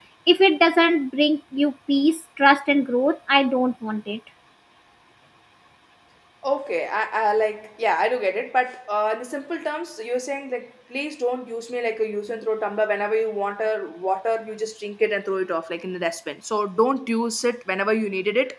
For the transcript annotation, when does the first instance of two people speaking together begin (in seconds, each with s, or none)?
none